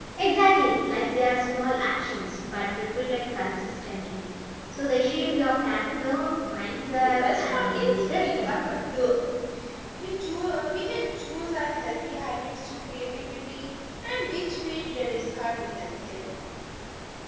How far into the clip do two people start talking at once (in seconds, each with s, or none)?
6.9 s